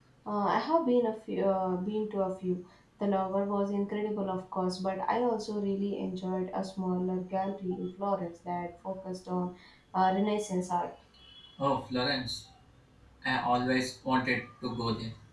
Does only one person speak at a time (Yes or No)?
Yes